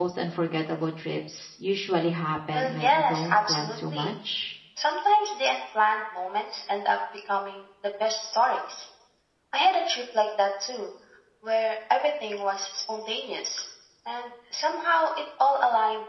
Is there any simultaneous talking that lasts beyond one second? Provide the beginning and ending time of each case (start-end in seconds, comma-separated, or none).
2.5-4.1